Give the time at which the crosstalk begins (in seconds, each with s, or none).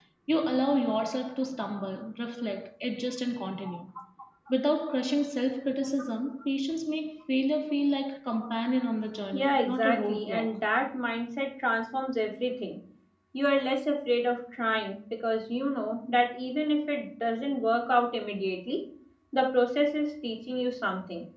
9.3 s